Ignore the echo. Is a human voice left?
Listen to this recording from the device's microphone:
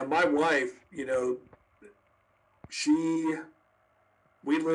No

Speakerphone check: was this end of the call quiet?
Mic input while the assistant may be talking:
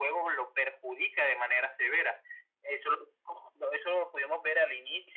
Yes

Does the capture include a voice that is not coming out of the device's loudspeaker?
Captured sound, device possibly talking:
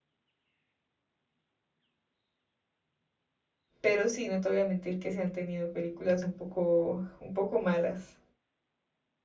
Yes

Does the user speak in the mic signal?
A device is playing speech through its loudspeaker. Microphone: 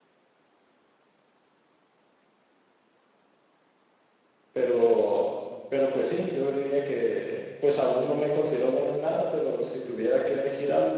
Yes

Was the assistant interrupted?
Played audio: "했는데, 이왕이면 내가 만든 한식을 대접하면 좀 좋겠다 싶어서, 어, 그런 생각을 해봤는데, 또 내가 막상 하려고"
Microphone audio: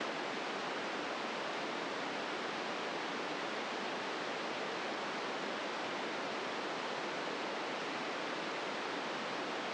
No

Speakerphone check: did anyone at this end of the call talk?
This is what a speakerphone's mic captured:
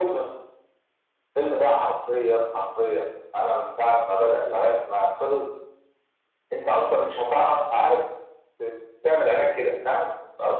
No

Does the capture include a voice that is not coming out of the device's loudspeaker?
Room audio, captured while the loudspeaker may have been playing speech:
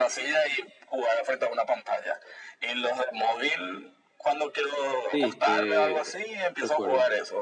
Yes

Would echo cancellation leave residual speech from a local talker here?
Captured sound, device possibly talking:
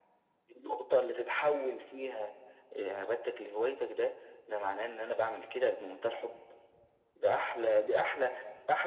No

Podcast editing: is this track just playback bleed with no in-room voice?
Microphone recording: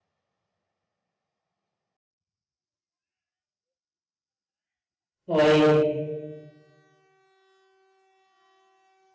No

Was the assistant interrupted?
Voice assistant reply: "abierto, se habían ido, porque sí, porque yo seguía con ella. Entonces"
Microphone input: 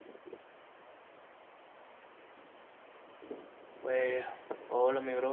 Yes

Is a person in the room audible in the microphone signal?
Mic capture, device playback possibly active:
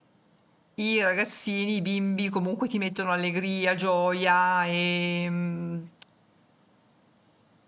Yes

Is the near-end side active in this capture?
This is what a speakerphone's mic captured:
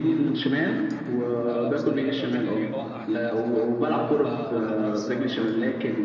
Yes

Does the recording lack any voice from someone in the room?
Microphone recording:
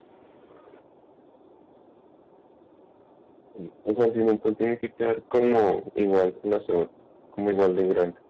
No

